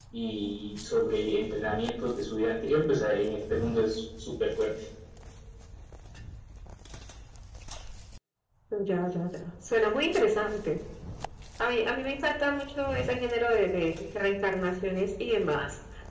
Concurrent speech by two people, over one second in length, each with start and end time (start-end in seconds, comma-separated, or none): none